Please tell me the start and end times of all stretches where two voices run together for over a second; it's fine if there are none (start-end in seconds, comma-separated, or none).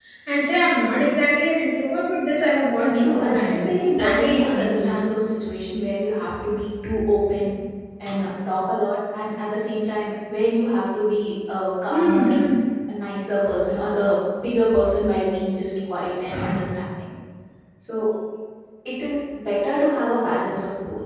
2.8-5.0